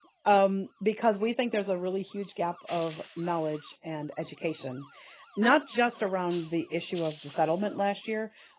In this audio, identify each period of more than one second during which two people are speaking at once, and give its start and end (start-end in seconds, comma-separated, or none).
none